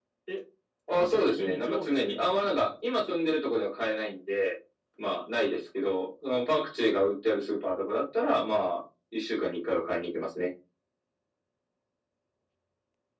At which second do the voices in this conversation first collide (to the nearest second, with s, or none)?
1 s